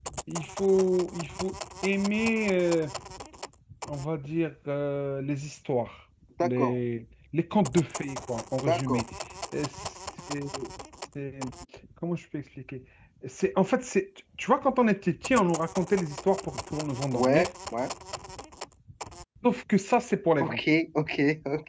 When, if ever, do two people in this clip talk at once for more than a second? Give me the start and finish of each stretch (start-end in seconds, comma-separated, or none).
none